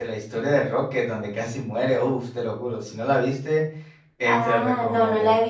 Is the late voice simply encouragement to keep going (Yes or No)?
No